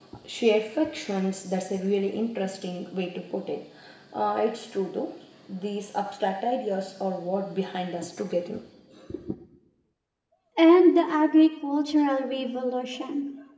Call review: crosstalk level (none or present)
none